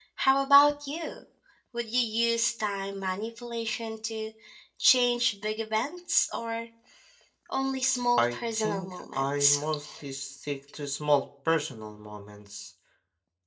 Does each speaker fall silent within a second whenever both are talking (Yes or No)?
No